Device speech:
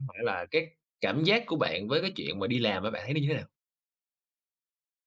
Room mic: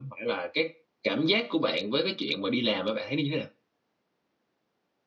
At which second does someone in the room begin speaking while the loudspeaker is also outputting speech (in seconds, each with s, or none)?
none